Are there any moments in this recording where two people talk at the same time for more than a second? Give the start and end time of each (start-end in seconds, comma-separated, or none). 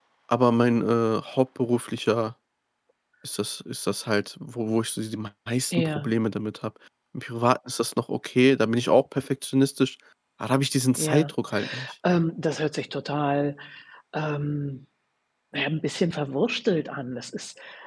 none